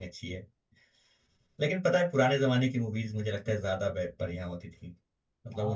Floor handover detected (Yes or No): Yes